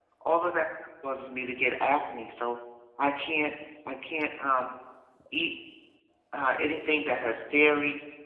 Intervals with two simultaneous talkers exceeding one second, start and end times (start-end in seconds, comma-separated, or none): none